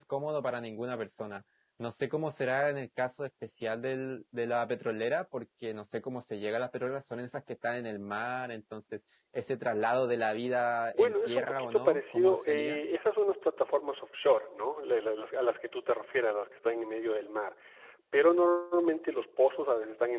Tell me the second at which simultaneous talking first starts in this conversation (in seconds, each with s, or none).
10.9 s